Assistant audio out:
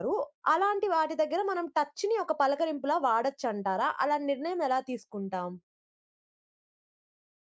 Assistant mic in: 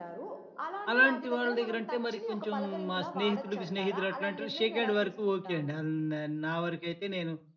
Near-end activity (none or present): present